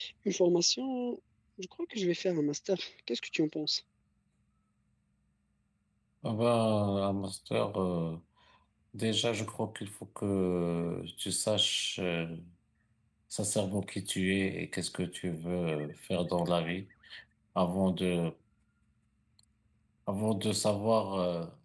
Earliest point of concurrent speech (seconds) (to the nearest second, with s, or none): none